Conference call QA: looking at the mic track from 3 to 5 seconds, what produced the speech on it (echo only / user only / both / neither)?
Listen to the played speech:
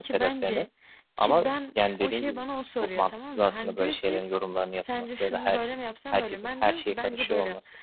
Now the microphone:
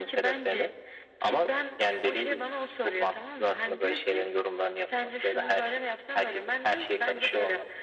echo only